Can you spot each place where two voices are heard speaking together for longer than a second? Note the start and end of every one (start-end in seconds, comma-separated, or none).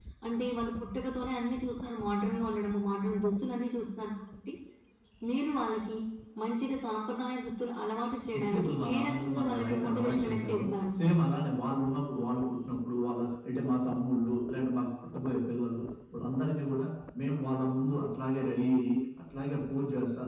8.4-10.6